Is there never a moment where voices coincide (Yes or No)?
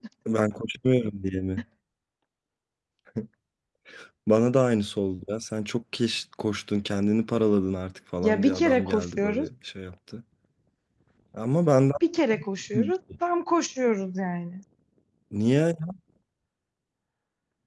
No